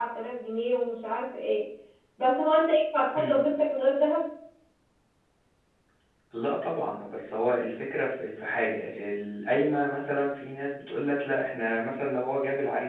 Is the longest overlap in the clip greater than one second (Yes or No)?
No